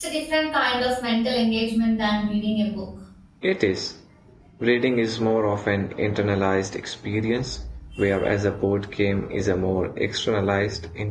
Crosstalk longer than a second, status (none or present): none